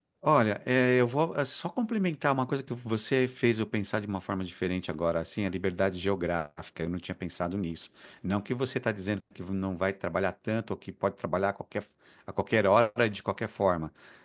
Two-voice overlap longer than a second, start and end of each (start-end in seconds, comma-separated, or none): none